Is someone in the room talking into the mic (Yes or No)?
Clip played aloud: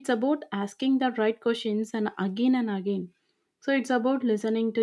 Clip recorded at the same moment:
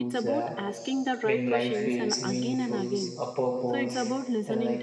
Yes